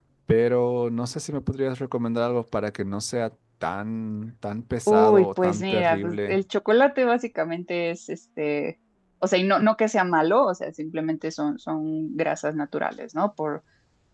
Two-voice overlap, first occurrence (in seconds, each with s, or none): 4.9 s